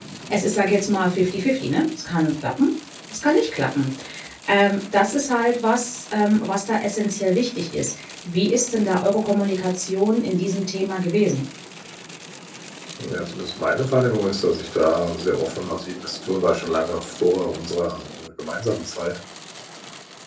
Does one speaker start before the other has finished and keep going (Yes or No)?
No